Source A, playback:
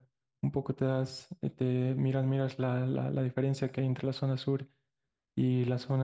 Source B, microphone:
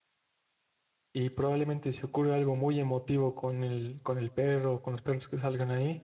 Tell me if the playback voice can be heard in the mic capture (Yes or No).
No